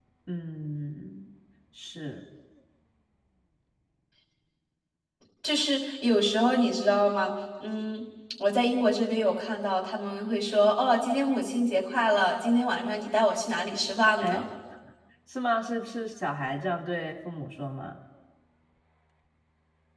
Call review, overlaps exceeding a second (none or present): none